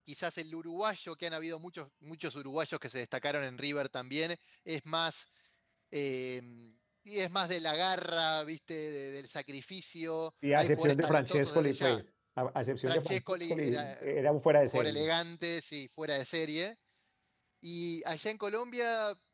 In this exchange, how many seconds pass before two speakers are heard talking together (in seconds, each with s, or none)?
10.6 s